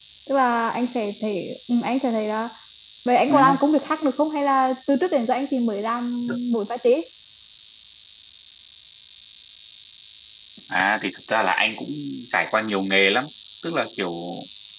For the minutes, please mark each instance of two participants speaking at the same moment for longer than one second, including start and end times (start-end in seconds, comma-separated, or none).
none